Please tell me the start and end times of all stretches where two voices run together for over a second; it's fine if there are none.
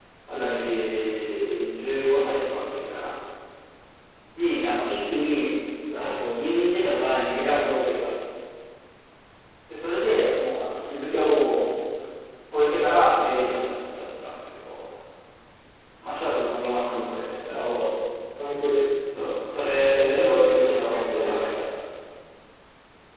19.9-21.5

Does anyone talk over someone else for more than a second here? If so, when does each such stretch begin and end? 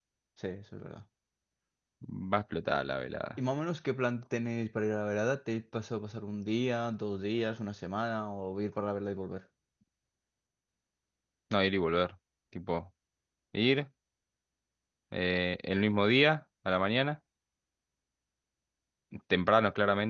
none

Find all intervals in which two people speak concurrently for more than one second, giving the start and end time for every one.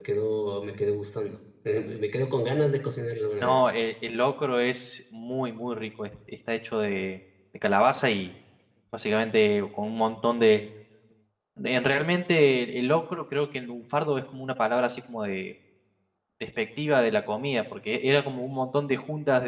none

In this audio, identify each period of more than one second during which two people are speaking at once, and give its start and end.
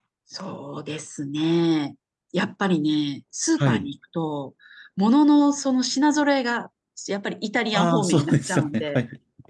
7.7-9.0

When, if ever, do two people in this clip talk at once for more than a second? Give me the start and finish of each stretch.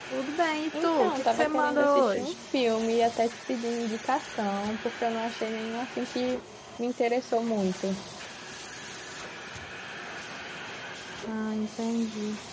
0.8-2.3

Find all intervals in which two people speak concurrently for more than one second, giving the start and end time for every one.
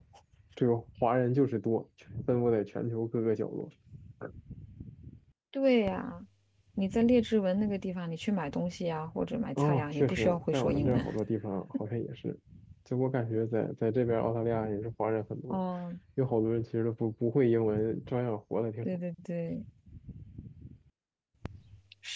9.6-11.0

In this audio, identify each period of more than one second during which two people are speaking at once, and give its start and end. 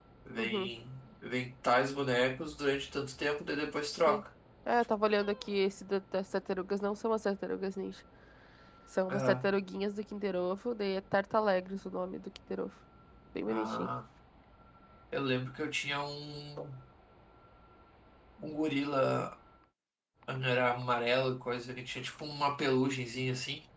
none

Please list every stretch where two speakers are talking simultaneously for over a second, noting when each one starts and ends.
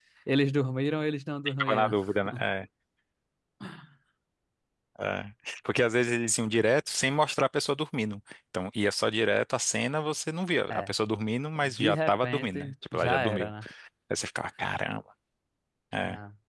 11.6-13.5

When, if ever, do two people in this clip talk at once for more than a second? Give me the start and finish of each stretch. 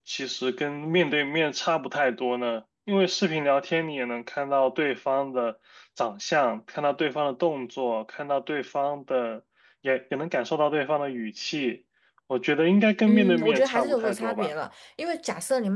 13.1-14.5

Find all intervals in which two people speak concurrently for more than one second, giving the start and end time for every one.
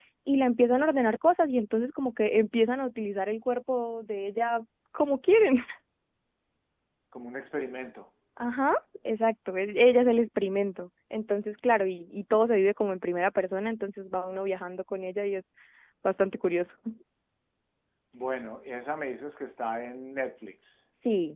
none

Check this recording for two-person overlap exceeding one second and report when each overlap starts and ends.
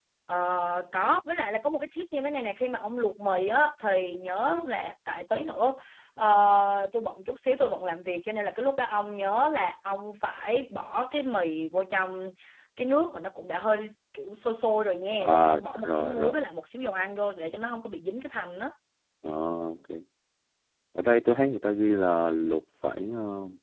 15.2-16.4

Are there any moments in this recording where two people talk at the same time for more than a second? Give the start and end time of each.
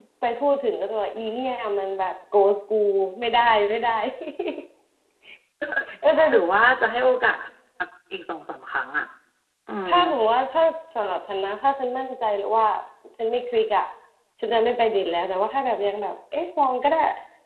none

